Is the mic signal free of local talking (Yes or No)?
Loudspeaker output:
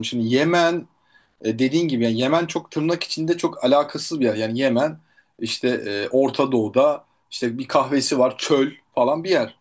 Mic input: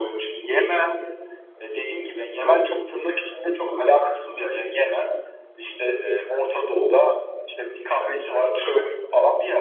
Yes